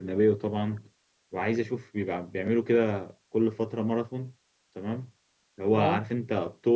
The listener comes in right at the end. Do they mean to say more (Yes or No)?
No